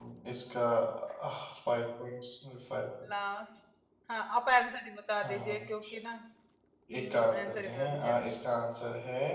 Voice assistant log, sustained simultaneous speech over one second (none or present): present